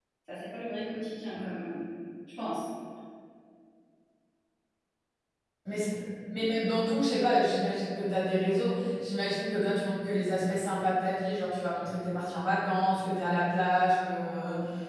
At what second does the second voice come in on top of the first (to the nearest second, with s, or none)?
none